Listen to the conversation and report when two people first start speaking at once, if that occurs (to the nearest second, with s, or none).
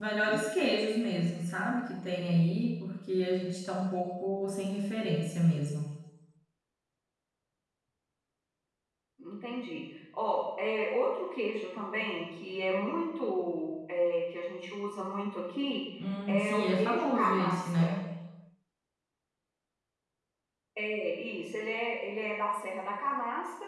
16 s